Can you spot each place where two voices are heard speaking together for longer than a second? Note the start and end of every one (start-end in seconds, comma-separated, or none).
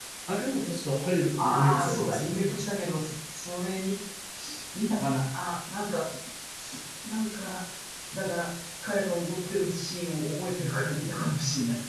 1.4-2.6